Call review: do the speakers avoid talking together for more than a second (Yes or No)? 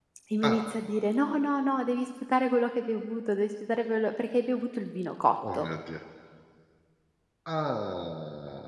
Yes